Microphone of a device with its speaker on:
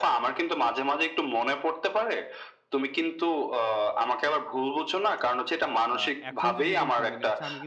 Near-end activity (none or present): present